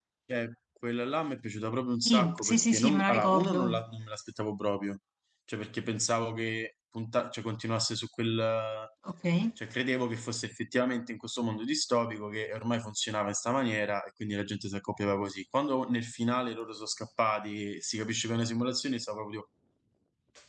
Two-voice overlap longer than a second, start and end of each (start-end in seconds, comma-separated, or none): 2.0-3.8